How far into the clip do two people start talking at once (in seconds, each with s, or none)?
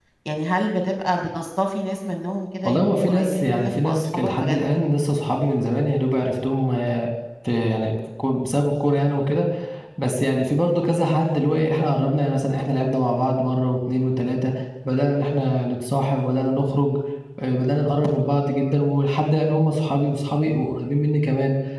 2.6 s